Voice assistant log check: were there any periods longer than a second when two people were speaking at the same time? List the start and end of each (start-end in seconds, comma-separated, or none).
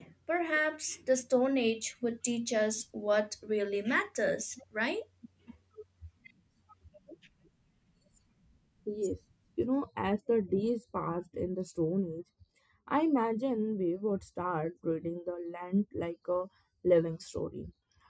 none